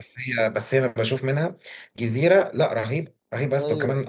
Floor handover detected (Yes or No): No